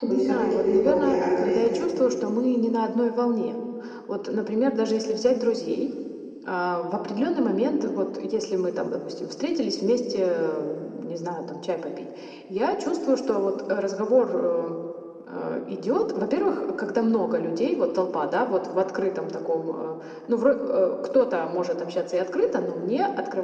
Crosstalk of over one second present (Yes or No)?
Yes